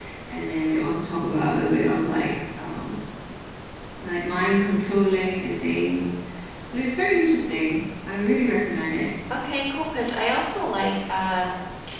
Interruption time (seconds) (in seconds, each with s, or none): none